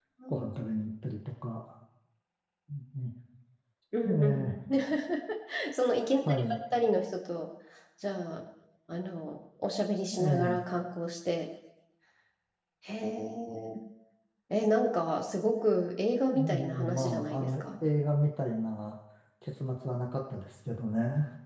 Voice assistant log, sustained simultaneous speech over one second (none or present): present